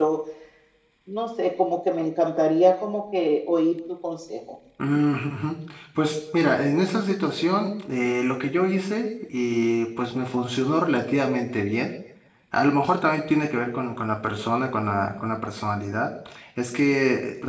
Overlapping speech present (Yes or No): No